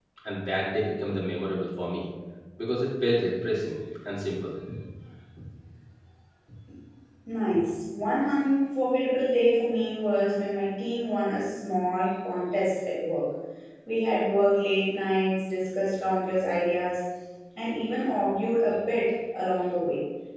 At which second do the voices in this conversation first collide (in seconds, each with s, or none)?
none